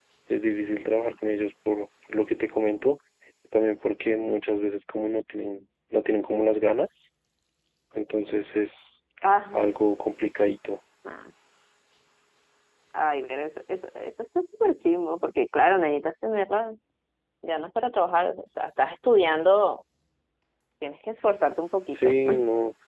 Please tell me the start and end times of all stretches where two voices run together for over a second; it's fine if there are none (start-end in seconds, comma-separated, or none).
none